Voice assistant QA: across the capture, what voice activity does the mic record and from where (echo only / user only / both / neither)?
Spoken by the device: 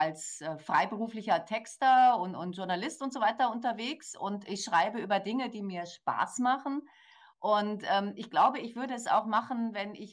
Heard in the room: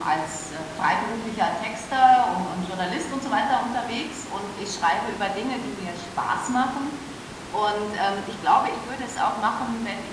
echo only